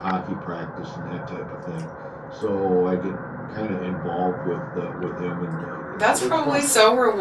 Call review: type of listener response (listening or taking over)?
taking over